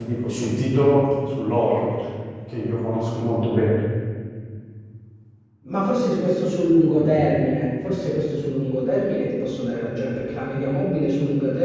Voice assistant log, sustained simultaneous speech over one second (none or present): none